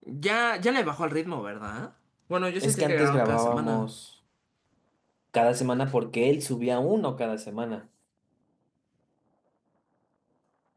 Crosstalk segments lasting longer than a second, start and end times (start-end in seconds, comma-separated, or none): 2.6-3.9